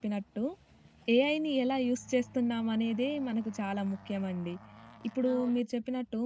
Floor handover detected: No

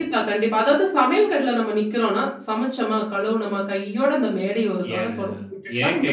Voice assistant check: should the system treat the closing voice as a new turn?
Yes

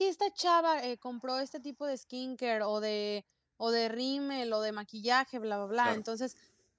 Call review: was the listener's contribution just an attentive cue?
Yes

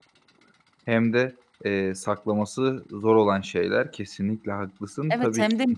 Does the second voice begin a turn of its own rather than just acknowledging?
Yes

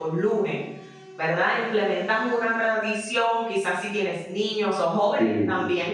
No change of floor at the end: Yes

